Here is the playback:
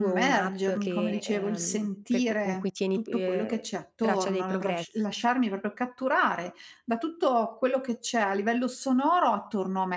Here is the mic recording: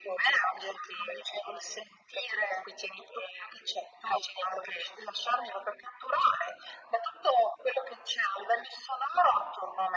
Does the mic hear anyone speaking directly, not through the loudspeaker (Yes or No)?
No